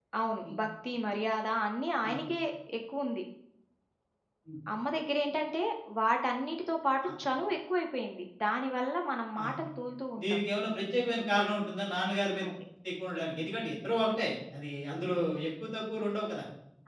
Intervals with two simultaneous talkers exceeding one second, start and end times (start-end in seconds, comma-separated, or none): none